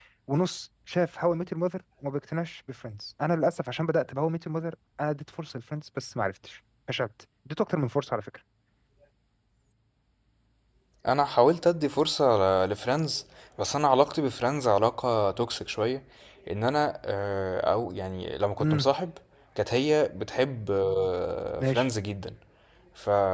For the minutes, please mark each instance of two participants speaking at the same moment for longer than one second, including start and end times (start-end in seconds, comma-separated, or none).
none